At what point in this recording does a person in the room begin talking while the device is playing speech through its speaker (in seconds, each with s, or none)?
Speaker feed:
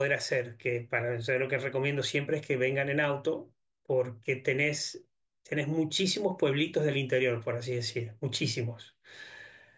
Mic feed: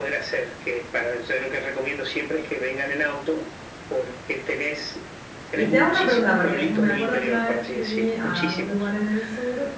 5.5 s